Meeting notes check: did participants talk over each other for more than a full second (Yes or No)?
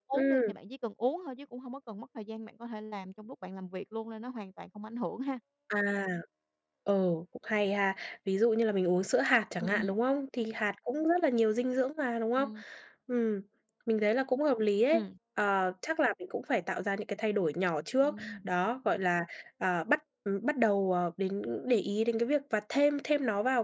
No